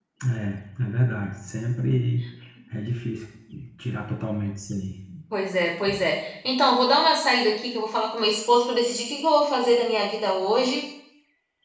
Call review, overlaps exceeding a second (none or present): none